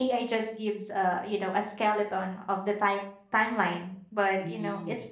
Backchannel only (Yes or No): Yes